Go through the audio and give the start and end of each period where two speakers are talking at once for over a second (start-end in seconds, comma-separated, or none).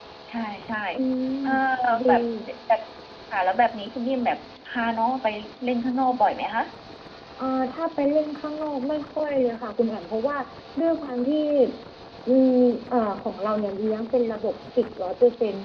none